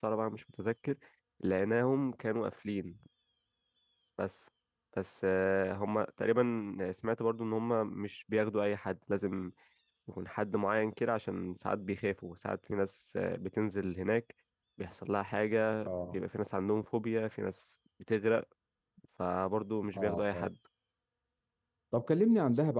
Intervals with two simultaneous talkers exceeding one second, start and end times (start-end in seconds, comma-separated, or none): none